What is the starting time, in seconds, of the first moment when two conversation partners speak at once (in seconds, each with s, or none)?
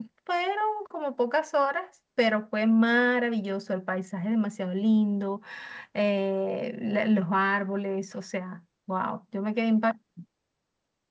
none